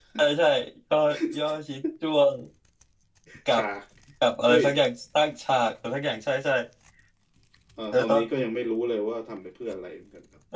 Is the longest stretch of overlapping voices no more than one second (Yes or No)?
Yes